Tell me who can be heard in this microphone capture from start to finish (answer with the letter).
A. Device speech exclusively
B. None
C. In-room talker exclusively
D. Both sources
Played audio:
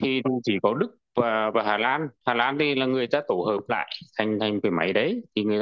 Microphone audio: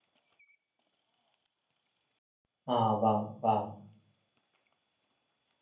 C